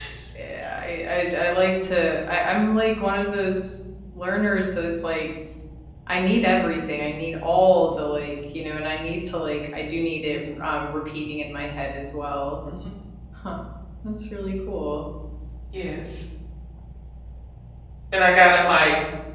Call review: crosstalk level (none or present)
none